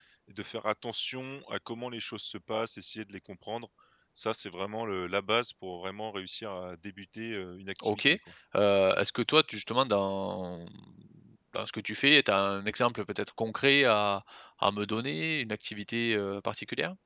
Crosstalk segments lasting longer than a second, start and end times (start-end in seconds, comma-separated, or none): none